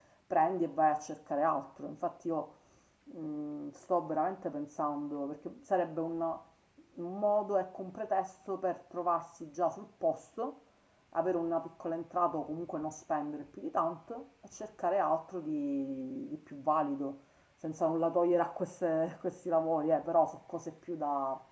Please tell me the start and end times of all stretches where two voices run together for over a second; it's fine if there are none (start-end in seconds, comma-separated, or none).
none